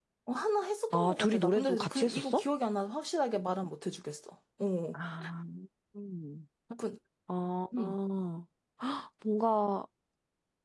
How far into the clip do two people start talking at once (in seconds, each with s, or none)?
0.9 s